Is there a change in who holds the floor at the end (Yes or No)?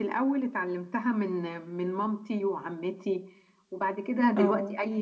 No